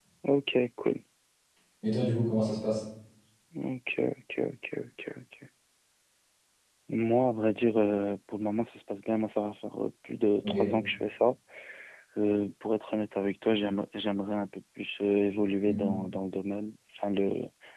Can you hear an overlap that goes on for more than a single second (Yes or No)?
No